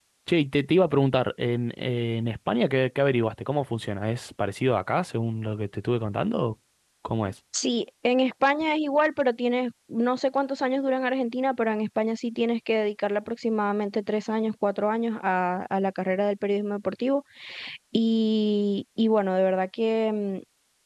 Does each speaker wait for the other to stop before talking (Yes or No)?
Yes